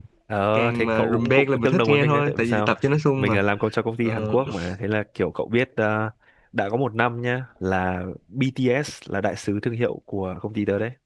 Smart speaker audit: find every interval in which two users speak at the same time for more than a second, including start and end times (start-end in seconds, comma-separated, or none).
0.5-2.7